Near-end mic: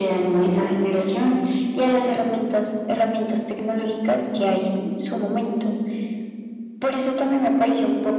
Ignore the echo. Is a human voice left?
No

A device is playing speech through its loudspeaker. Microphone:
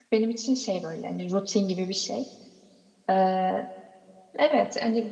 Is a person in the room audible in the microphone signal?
Yes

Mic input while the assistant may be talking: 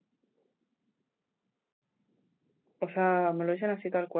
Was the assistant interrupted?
Yes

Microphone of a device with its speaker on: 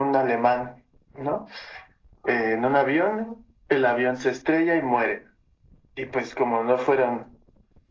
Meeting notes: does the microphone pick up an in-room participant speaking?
No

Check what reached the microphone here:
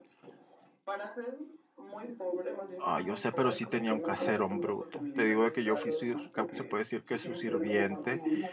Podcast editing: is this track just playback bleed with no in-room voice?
No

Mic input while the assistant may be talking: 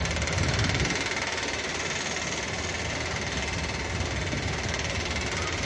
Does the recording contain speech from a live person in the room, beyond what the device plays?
No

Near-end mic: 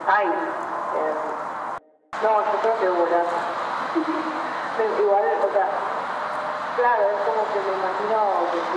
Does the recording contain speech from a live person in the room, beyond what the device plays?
No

